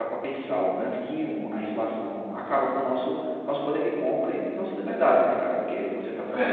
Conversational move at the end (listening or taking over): listening